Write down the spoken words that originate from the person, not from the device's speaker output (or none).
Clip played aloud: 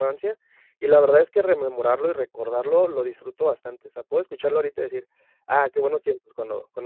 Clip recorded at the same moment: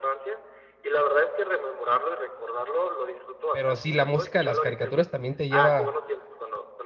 Pero sí, la música de las caricaturas también te lleva